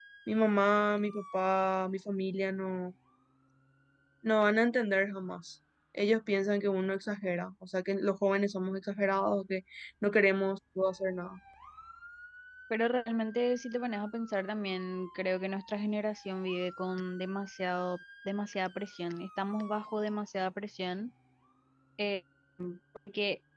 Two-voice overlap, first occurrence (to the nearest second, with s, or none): none